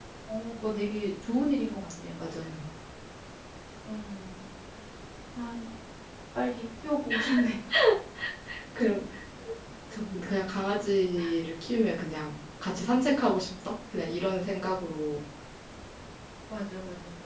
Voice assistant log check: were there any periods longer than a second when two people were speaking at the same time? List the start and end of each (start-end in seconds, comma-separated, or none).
none